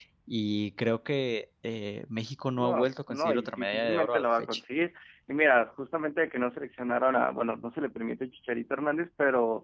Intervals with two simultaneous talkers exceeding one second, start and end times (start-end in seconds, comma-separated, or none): 2.6-4.6